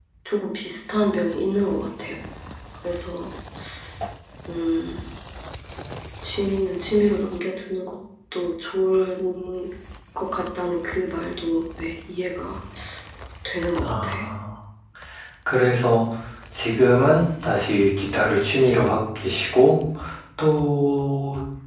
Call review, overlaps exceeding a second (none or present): none